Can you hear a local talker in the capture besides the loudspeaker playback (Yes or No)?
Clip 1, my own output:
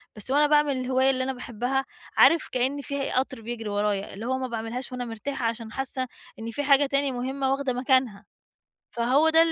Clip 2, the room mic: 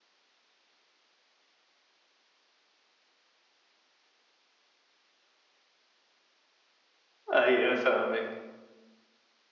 Yes